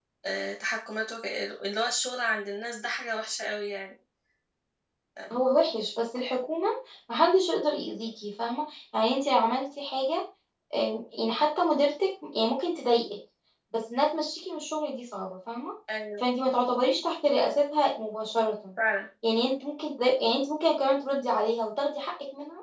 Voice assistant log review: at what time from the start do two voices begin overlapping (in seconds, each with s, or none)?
none